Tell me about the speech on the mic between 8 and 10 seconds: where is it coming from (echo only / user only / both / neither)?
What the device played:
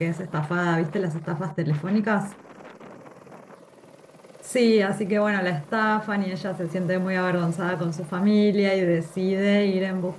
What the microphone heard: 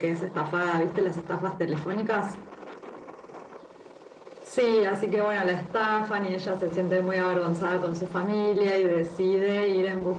echo only